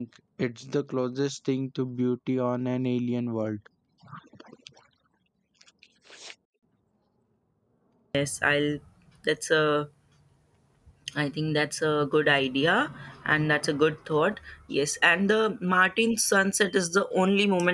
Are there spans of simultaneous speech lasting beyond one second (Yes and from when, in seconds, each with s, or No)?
No